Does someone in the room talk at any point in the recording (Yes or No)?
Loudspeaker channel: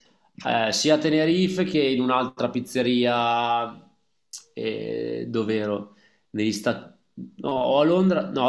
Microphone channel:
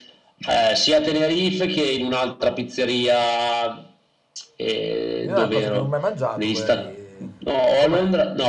Yes